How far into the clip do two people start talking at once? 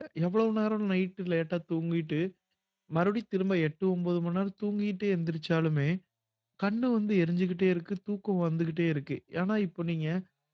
none

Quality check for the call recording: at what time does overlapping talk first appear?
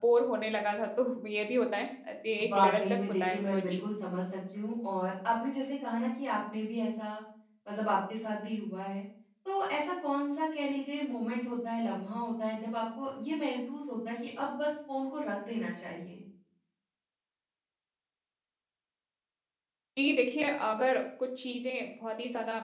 2.4 s

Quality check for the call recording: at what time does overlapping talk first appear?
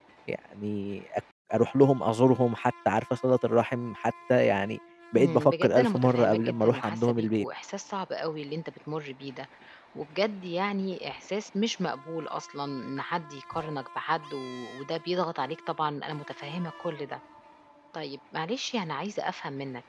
5.2 s

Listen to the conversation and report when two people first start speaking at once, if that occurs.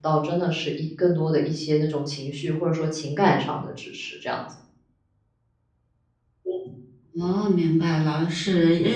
none

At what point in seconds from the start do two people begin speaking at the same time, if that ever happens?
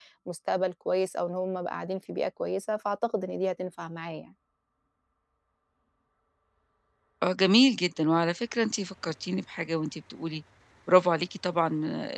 none

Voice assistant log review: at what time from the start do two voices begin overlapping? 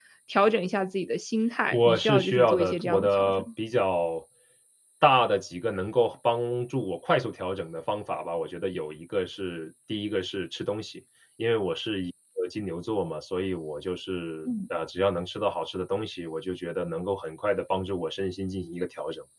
1.7 s

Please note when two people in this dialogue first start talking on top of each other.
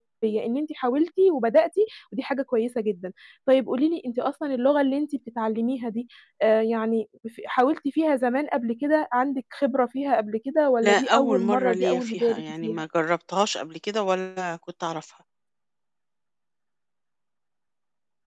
10.8 s

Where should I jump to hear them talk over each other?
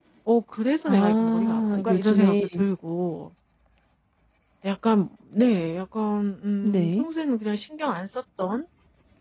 0.9 s

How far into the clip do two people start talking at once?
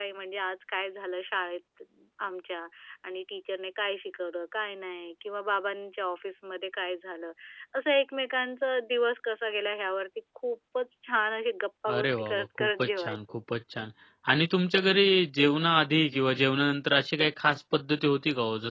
11.9 s

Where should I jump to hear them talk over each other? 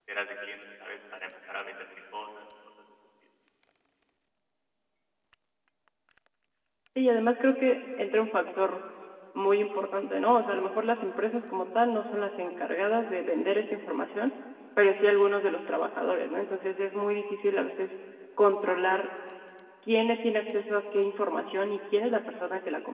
none

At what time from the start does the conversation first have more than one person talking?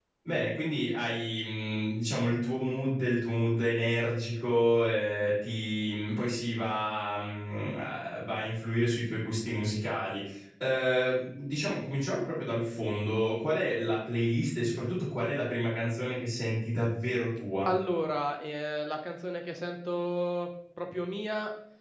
none

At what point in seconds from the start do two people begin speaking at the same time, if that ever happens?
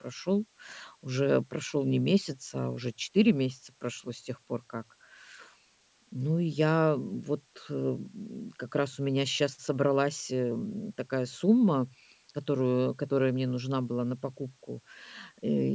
none

